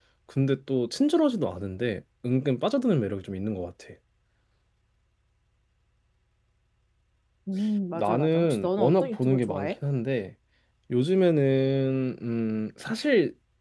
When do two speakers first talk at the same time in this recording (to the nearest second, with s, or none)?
8 s